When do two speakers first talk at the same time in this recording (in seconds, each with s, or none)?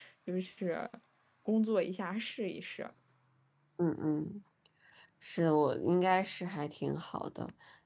none